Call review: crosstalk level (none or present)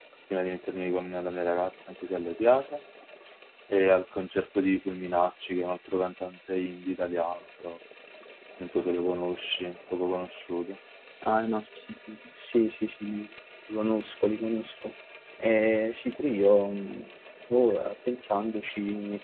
none